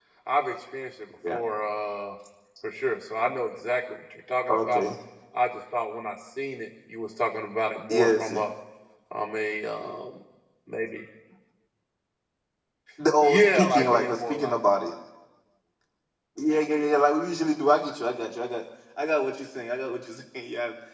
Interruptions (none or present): present